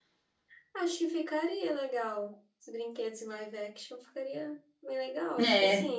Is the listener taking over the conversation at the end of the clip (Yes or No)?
Yes